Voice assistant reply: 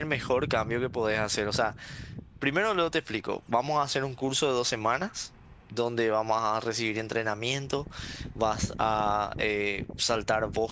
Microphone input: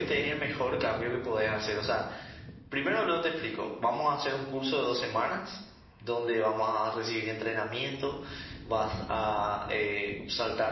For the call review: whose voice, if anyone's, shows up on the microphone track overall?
echo only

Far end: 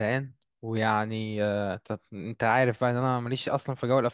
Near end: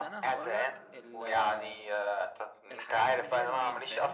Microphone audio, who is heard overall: both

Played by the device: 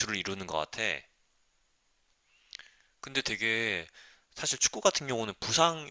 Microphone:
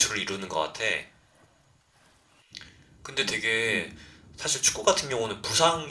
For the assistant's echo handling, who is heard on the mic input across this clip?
both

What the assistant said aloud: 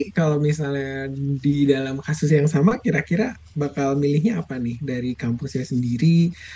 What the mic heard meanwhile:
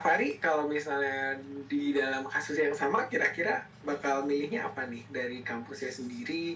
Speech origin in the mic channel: echo only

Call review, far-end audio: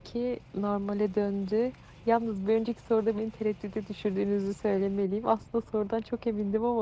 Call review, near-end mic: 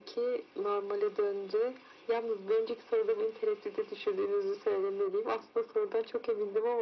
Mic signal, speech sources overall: echo only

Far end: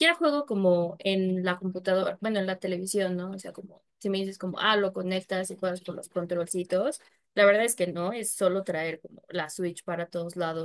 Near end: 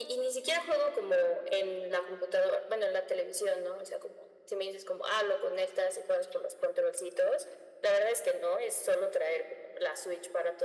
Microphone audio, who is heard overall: echo only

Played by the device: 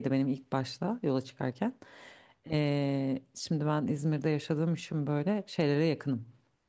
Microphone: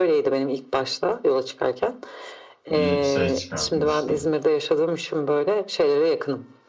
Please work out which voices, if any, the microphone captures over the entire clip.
both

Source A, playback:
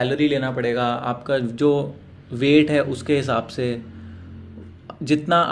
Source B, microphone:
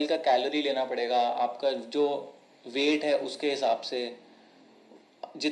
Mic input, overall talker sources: echo only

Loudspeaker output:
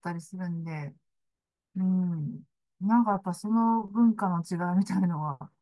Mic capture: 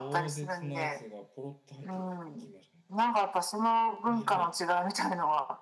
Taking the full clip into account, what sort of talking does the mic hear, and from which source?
both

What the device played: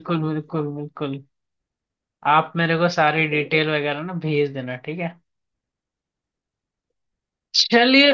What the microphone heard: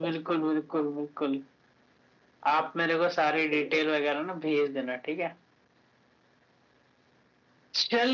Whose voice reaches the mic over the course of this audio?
echo only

